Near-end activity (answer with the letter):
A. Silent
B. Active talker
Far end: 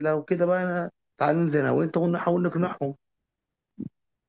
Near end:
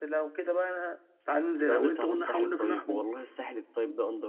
B